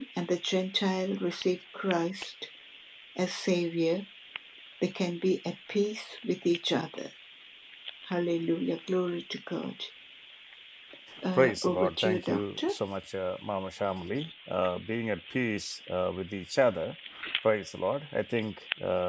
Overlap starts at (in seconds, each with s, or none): 11.4 s